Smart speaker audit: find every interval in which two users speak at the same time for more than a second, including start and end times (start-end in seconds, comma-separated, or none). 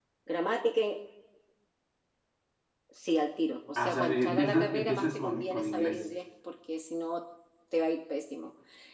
3.8-6.0